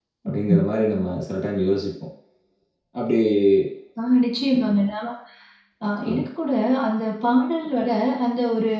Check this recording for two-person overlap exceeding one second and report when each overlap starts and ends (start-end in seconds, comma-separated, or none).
none